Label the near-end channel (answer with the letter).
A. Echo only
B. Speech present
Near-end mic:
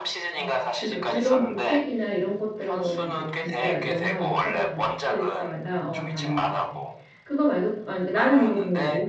B